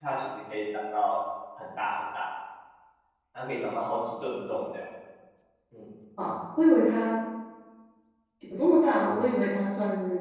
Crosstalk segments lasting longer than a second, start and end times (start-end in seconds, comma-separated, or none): none